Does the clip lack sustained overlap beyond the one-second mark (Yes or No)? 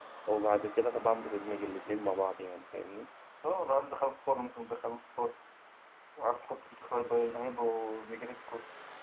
Yes